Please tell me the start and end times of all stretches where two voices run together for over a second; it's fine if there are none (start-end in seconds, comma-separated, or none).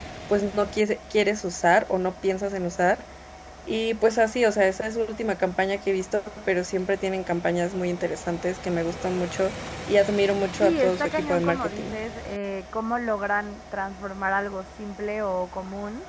10.6-11.9